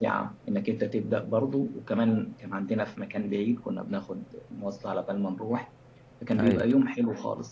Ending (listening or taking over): listening